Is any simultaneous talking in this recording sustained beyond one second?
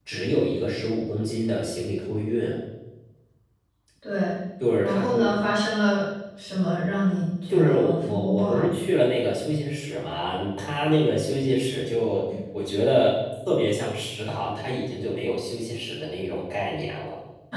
Yes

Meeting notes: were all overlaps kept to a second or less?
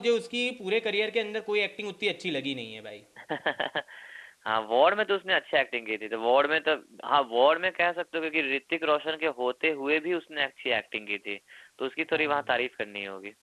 Yes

